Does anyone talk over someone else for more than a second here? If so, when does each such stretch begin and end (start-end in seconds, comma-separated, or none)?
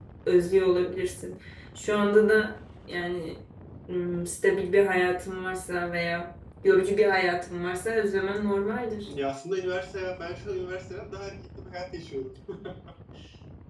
none